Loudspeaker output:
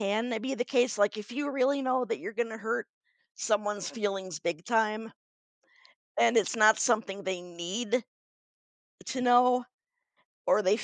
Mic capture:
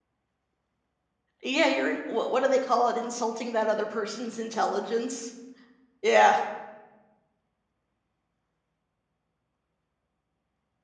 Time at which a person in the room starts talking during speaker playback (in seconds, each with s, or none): 1.4 s